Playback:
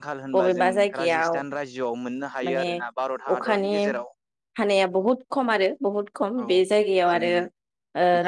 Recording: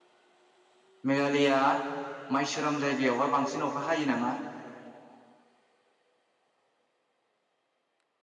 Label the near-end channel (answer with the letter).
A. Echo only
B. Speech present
B